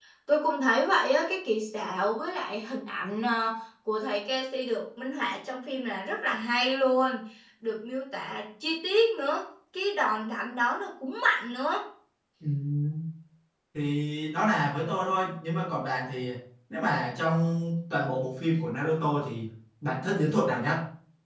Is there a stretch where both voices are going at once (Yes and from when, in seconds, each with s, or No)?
No